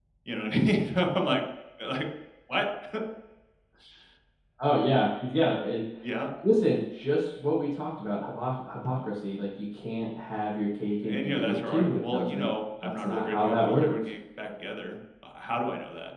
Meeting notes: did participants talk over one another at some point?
Yes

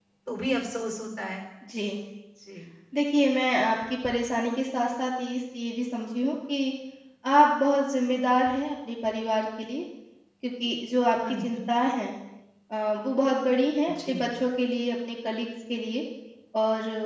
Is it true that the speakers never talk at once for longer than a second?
Yes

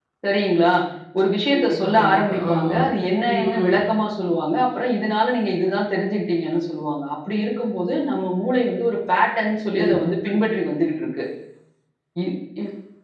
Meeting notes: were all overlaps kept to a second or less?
No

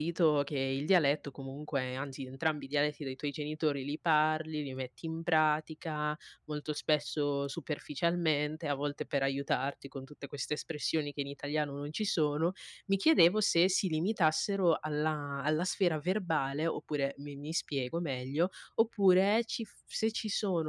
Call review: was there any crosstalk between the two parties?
No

